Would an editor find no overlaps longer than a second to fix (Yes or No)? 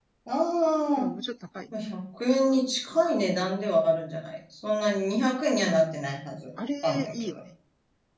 Yes